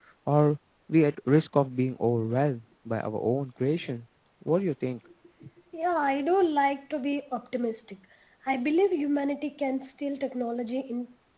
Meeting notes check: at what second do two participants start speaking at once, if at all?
none

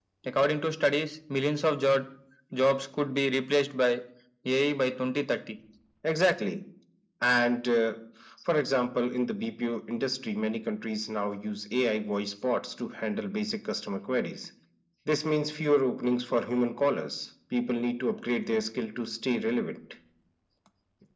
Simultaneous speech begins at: none

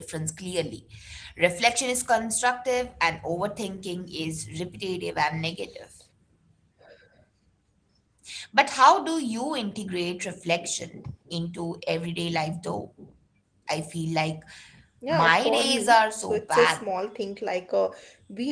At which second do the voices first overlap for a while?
15 s

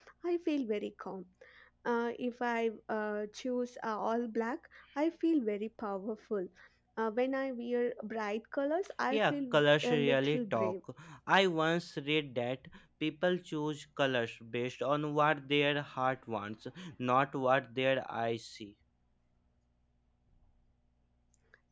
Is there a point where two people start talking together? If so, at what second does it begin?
9 s

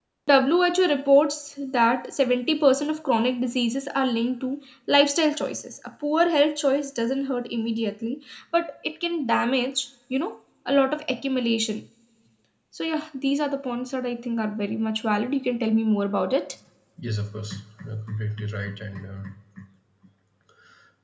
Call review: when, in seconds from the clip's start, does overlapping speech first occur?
none

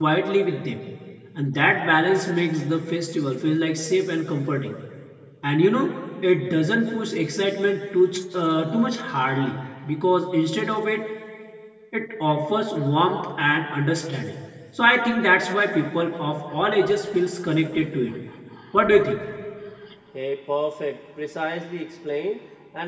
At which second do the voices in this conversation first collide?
none

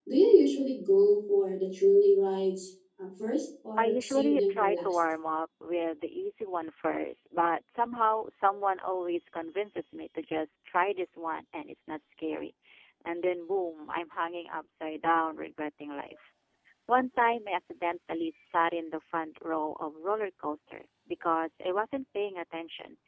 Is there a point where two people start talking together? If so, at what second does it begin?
4 s

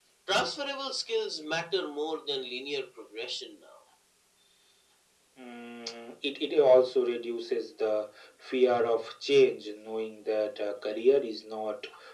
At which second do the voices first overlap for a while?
none

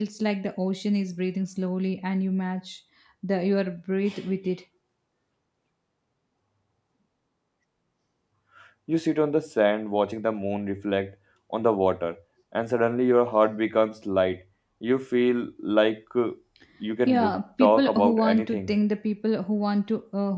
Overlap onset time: 17 s

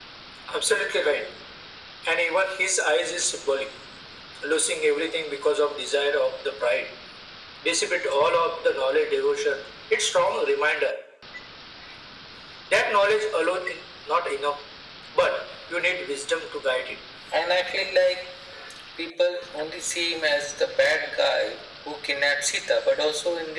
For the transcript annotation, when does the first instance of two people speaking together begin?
none

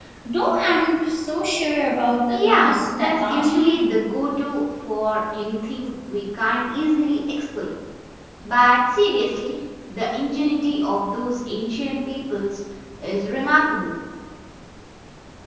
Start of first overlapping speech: 2 s

